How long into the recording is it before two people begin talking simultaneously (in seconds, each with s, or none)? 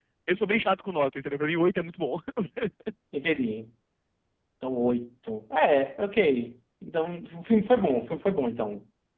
none